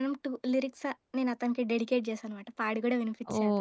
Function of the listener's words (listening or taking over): taking over